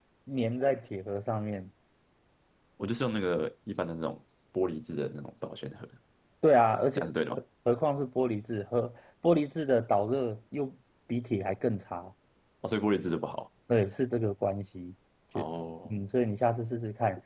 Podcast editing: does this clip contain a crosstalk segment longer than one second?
No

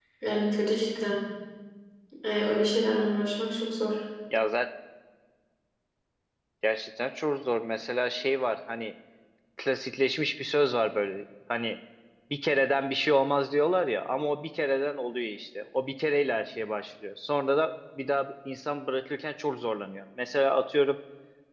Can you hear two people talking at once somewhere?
No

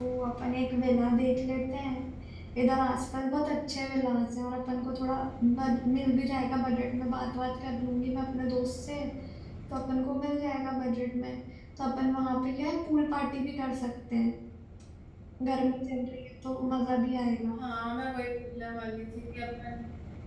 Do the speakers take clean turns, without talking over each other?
Yes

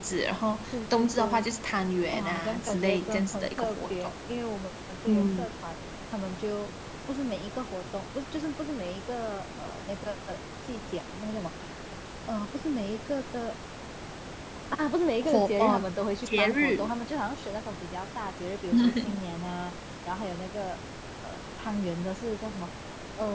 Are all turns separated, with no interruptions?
No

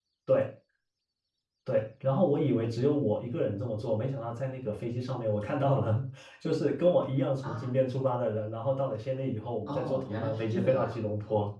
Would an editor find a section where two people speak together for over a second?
Yes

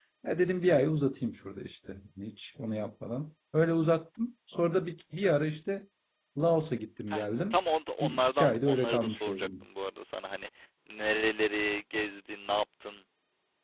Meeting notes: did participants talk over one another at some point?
Yes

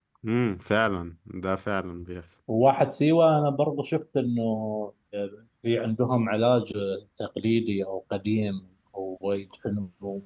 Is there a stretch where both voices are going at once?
No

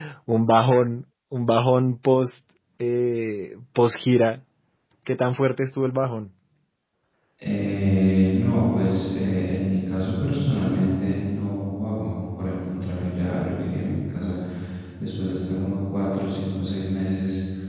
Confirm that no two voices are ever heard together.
Yes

